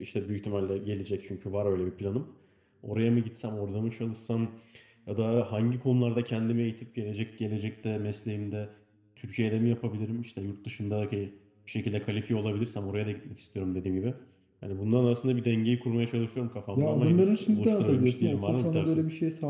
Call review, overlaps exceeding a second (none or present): present